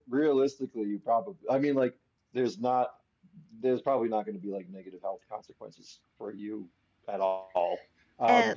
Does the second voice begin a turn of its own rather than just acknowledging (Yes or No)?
No